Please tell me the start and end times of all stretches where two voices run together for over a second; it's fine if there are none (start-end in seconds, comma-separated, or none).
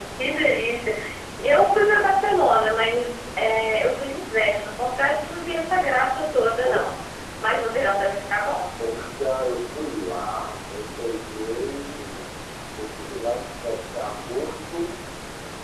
none